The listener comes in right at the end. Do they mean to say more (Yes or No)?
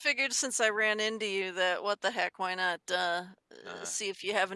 No